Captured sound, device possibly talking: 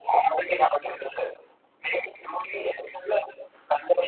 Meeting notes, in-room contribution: none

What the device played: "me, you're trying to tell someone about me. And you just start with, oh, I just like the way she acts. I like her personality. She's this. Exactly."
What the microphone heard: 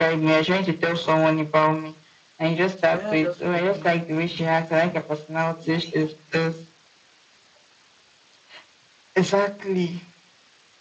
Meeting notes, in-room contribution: present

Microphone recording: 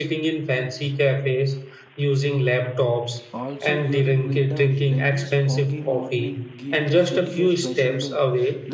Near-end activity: present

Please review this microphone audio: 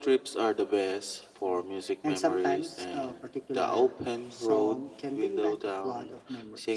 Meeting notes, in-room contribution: none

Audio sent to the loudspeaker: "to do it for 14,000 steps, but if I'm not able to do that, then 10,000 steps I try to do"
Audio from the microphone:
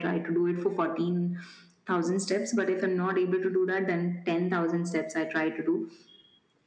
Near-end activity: none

